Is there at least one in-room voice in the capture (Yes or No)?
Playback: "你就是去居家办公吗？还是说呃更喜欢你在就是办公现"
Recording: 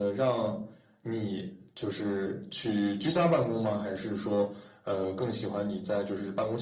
No